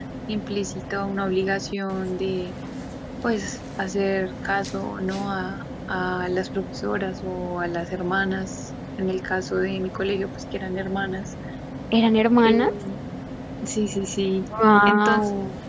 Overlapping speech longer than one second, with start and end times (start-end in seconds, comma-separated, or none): none